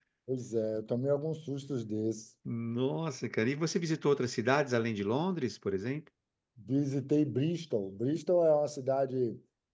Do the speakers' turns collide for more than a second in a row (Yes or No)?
No